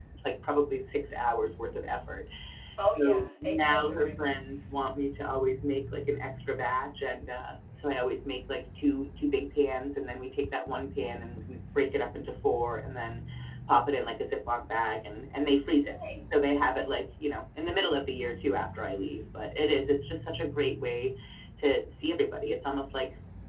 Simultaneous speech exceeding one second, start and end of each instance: 3.0-4.4

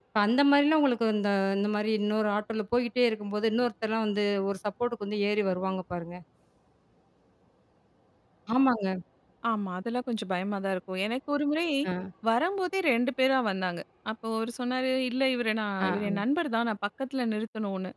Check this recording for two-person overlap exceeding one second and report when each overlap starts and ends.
none

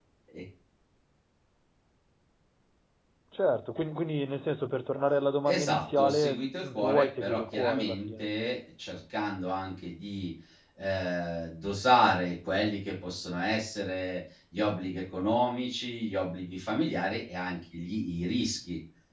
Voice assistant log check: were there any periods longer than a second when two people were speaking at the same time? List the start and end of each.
5.5-8.2

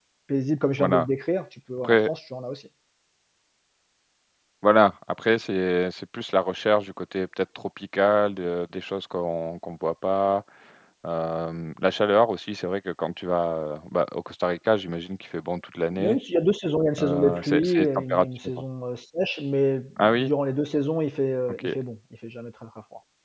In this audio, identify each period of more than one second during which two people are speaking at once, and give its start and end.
17.0-18.6

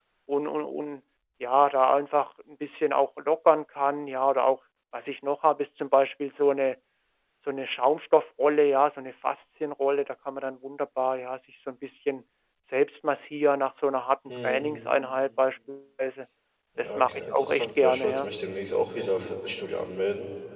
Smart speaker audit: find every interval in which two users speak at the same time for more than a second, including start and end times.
16.8-18.3

